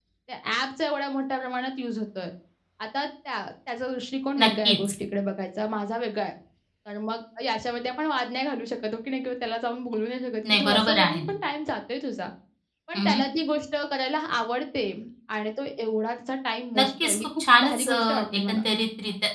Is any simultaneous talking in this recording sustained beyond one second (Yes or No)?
Yes